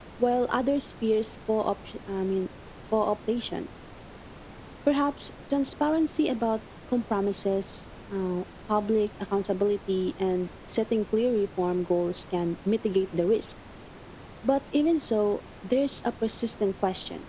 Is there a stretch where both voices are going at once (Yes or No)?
No